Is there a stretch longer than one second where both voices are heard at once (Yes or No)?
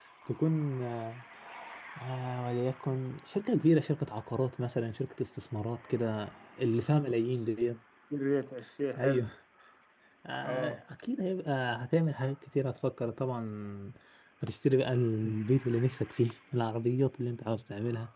No